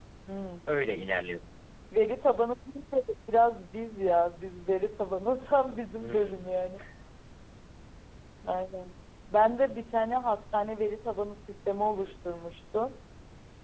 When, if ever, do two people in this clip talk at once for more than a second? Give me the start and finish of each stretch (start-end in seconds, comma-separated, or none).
none